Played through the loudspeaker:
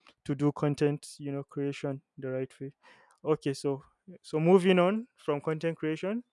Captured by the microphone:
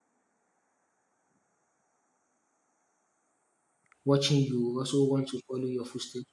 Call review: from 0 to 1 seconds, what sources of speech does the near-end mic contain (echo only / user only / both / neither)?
neither